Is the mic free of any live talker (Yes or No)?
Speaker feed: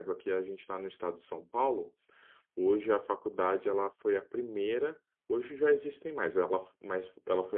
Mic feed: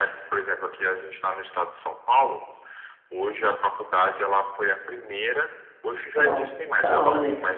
No